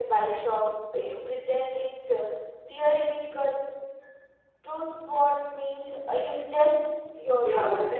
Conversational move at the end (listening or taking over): taking over